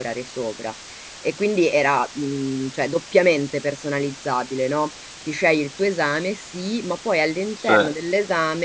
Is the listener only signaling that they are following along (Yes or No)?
Yes